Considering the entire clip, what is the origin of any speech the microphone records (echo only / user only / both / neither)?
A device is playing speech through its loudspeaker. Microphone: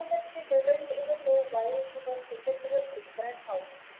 echo only